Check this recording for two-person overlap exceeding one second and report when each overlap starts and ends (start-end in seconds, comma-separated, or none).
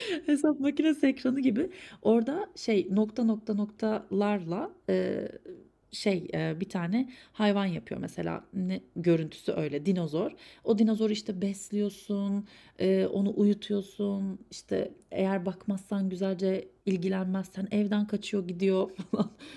none